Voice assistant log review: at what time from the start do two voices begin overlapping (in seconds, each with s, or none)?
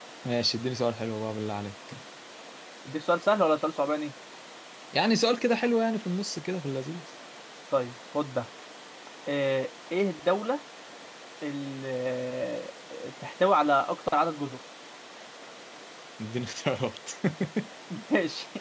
none